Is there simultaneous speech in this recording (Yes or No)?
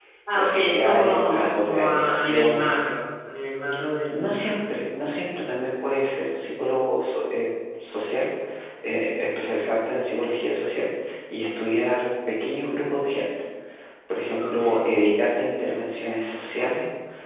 Yes